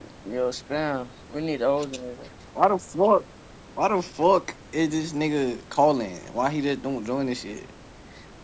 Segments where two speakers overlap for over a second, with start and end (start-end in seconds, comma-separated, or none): none